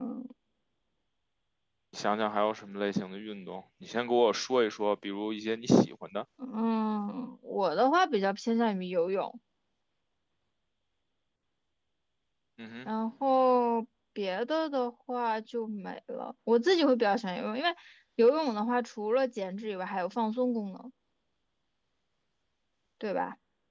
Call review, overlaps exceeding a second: none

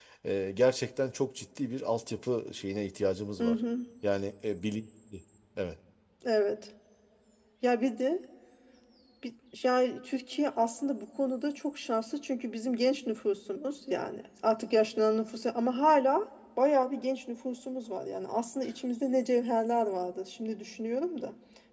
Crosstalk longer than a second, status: none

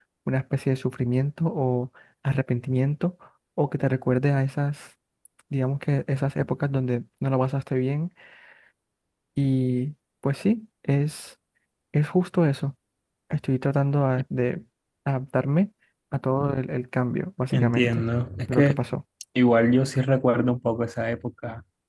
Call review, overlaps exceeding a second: none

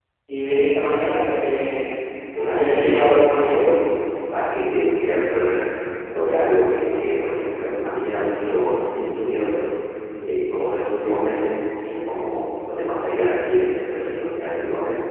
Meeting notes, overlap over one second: present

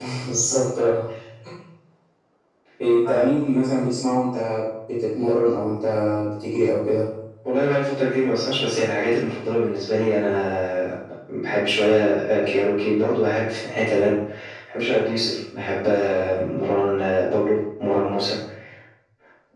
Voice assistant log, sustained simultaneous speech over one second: none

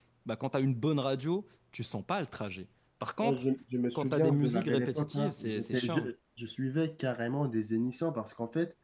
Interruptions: present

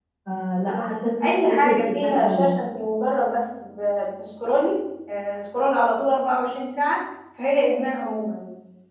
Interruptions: present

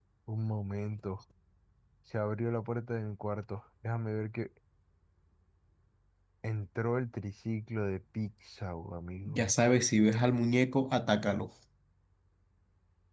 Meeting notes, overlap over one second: none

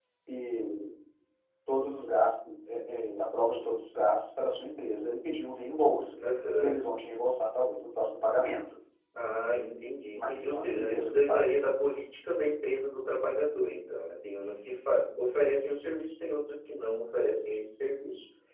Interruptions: present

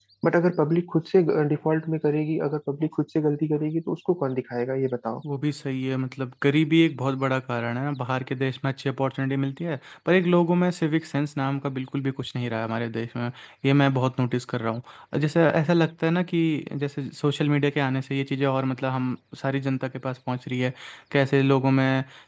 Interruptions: none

